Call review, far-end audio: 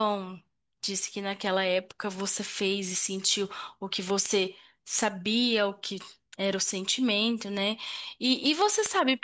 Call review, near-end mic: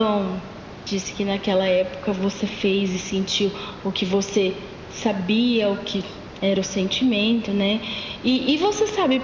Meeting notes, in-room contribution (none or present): none